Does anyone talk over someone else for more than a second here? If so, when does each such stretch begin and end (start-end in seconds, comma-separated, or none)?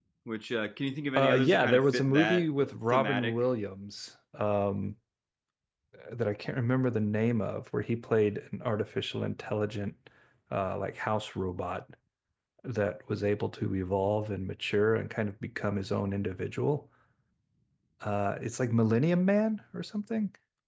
1.1-3.4